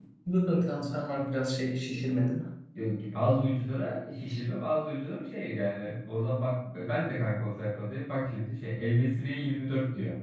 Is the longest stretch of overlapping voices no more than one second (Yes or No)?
Yes